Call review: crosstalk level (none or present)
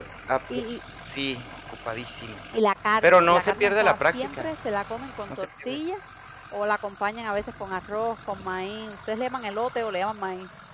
present